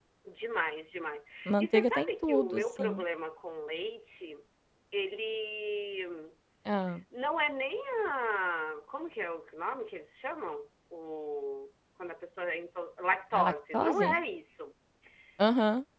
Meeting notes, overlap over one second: present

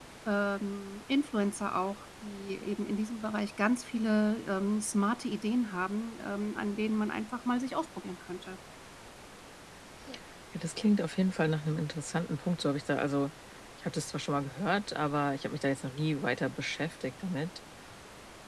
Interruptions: none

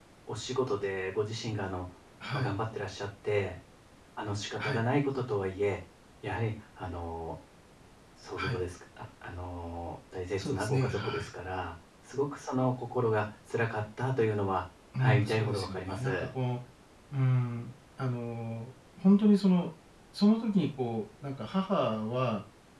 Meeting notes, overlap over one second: present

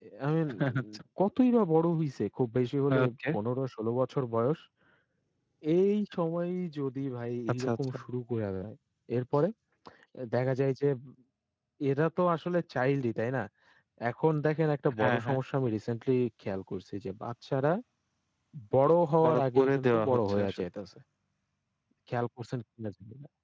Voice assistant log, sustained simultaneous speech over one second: present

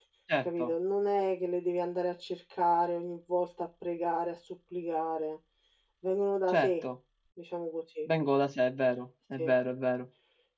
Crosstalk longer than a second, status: none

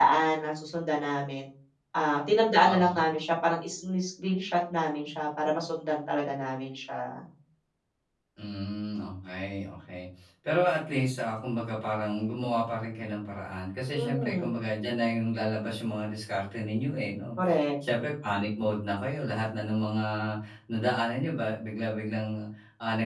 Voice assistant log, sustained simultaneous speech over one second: none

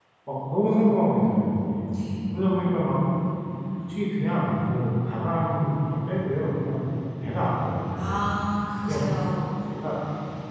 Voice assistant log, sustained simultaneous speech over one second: none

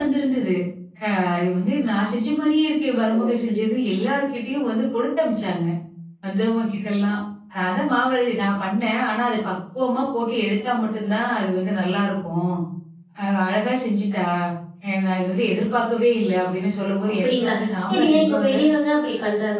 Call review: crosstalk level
present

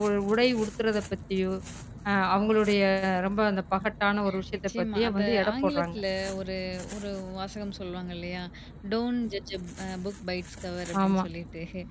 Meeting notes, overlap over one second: present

